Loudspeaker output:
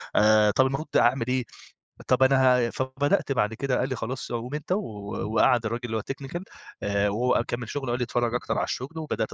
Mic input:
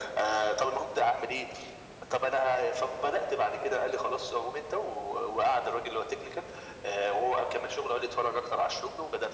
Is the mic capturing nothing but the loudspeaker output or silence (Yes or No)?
Yes